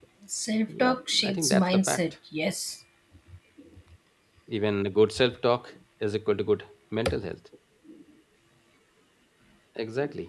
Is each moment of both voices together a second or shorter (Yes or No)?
No